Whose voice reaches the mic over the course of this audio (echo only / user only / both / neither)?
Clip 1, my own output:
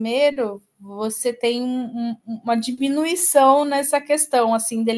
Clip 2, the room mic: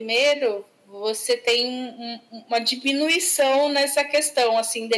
echo only